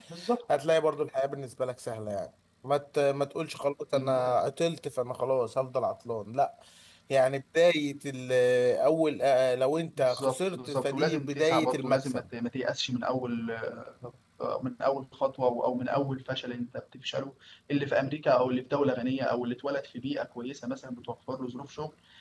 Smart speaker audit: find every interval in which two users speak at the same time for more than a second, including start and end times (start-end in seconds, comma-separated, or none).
10.0-12.2